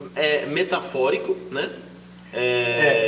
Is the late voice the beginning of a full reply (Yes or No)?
No